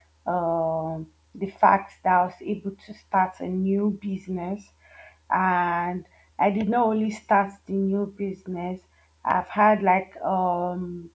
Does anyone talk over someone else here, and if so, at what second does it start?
none

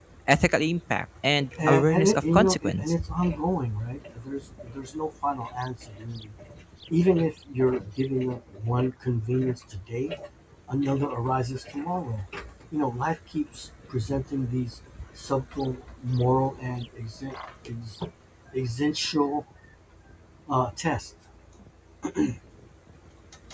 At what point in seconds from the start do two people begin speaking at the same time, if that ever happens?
2 s

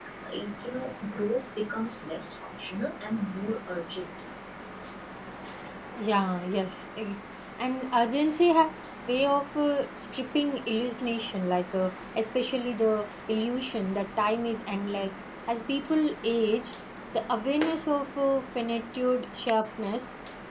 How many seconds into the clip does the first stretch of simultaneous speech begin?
none

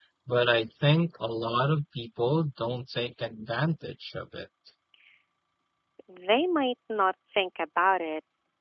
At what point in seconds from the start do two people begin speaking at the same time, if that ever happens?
none

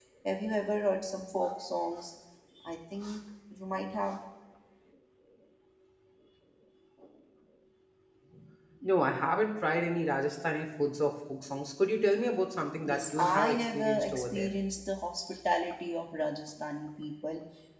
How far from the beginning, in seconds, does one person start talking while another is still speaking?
13 s

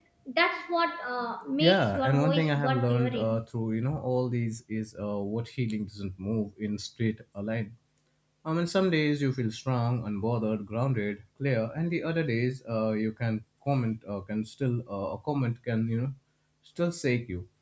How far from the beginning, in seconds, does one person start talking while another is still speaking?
2 s

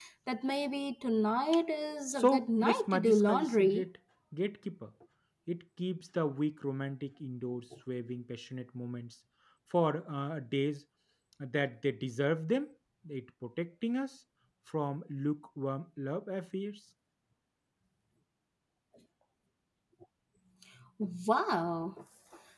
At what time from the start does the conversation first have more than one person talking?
2 s

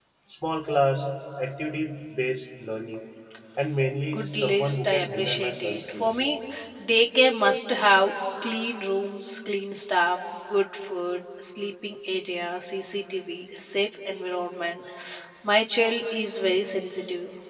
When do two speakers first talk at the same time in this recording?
4 s

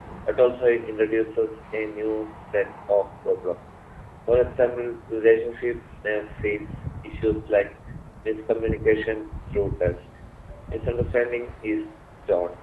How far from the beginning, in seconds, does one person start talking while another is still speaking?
none

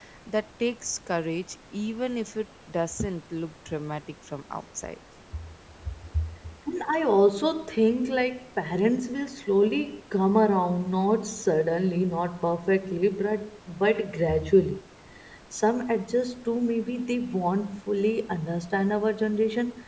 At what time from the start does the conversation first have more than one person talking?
none

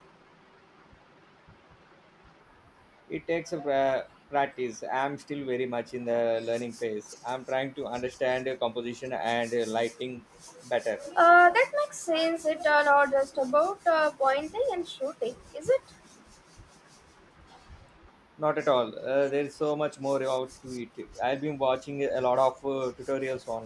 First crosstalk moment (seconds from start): none

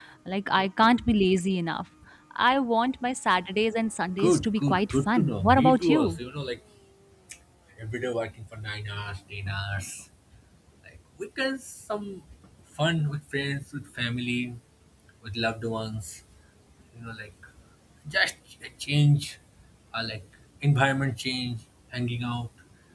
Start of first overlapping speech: 4 s

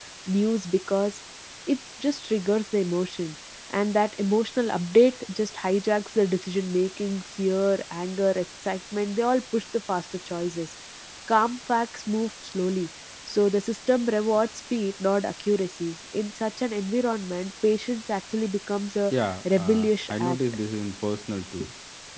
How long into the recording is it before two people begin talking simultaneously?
19 s

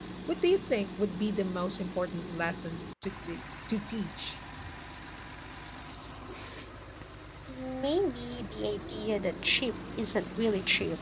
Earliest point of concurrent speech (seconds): none

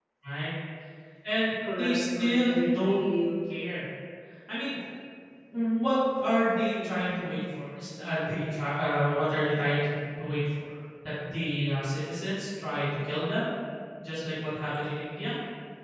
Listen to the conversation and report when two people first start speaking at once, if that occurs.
2 s

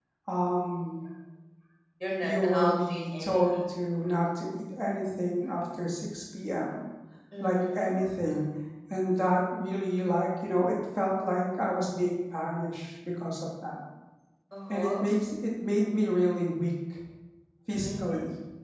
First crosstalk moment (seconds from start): 2 s

